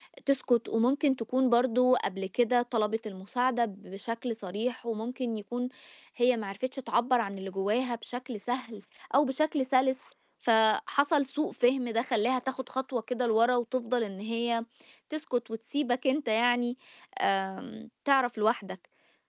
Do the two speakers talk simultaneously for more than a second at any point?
No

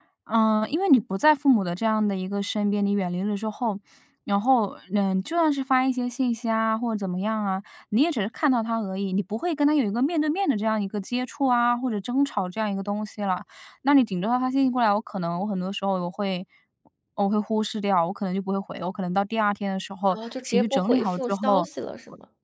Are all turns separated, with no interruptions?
No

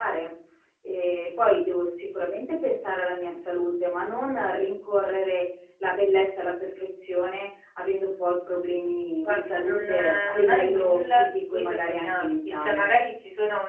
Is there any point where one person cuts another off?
Yes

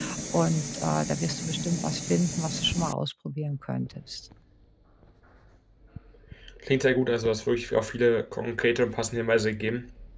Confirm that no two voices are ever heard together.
Yes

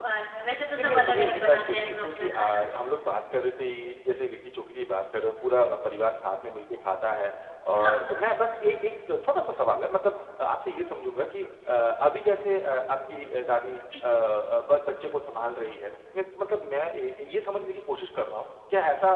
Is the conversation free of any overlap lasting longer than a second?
No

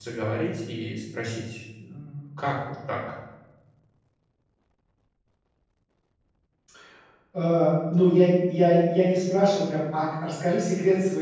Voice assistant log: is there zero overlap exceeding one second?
Yes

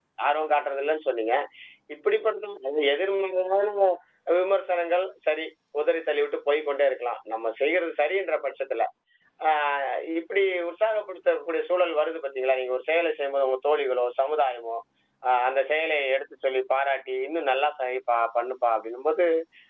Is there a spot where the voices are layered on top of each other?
No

